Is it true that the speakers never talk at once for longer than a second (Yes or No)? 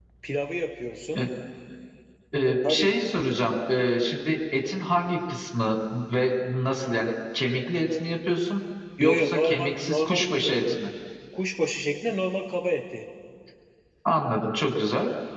No